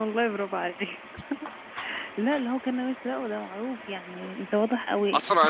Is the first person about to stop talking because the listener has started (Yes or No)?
Yes